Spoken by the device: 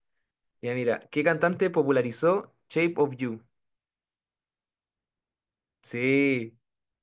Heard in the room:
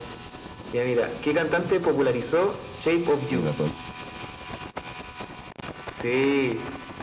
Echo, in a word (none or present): present